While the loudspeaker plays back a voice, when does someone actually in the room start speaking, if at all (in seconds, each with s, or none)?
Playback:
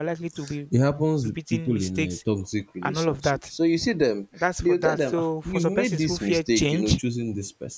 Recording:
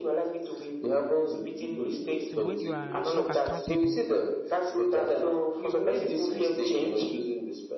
2.2 s